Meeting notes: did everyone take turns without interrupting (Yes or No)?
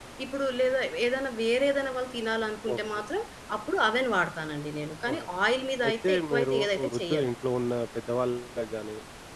No